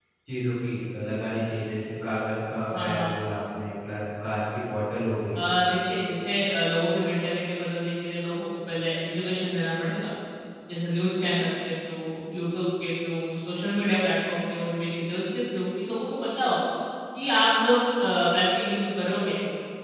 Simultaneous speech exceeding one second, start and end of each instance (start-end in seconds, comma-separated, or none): none